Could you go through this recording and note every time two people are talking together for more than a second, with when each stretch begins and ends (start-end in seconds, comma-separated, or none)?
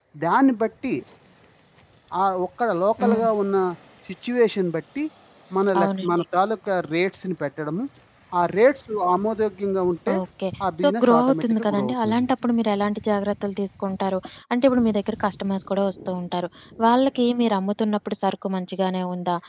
10.8-12.3